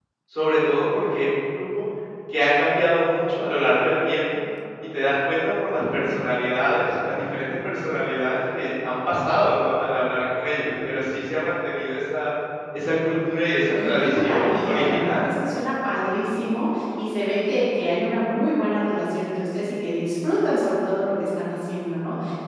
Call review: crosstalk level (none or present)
present